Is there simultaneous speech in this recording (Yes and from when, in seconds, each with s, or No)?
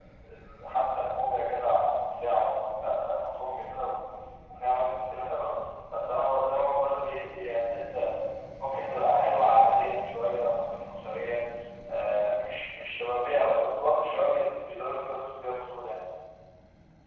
No